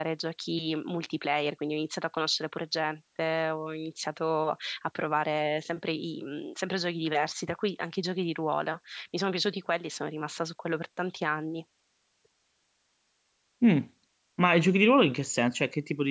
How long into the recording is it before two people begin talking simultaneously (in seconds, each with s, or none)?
none